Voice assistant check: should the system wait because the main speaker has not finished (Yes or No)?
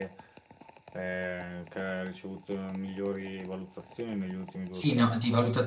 No